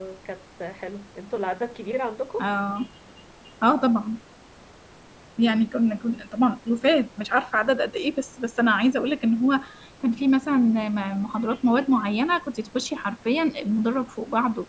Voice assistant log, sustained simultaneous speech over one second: none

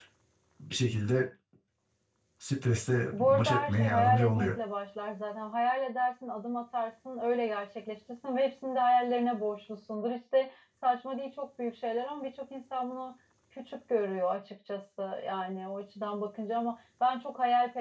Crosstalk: present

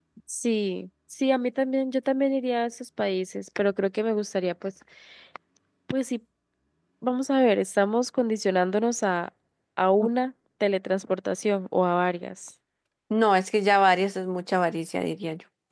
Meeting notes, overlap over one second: none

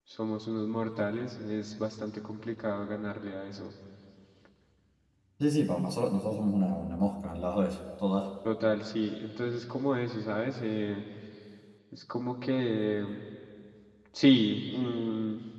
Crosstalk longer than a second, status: none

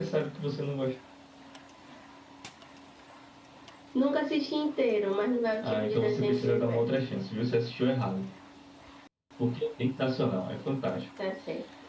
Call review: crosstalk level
present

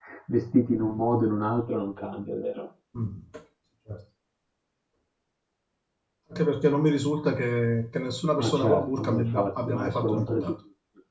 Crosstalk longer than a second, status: present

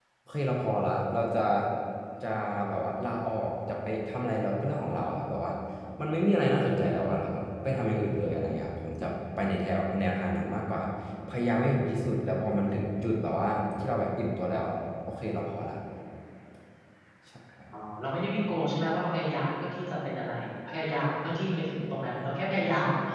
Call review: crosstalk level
none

